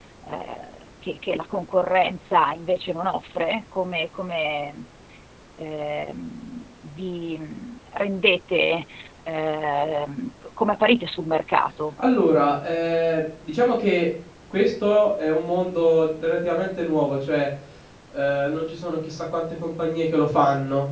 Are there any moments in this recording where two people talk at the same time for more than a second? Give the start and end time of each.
none

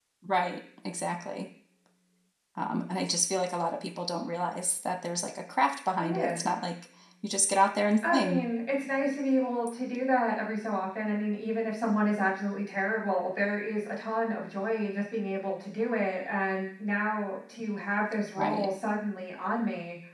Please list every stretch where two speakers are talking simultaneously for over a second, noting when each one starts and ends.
none

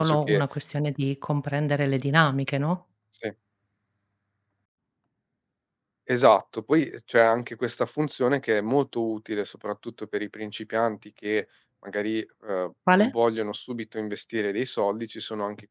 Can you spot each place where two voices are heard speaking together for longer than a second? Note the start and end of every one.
none

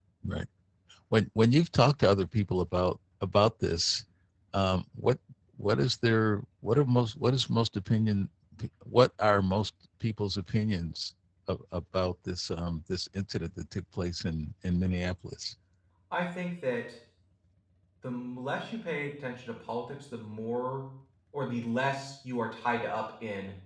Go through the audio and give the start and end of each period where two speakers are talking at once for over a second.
none

